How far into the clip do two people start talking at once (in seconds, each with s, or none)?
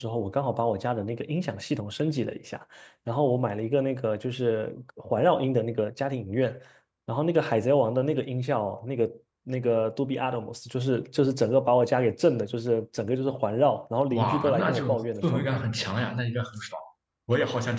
14.1 s